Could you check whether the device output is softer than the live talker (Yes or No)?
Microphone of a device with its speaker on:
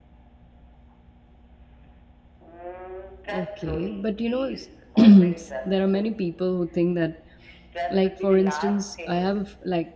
Yes